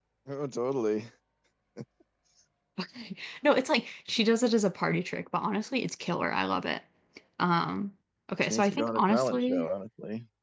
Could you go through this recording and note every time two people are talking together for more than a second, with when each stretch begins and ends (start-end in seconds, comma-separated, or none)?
8.4-9.7